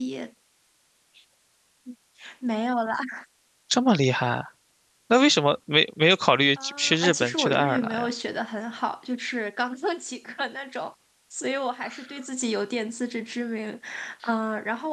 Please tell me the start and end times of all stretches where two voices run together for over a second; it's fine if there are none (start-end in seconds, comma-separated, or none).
6.6-8.1